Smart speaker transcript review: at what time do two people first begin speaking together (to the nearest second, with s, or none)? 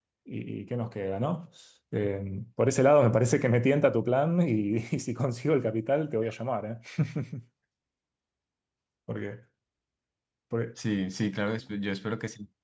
none